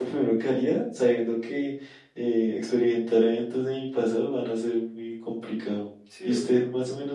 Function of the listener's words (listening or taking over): listening